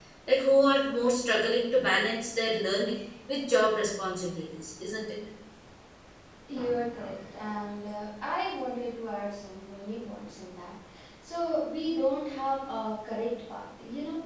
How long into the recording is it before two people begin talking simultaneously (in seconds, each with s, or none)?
none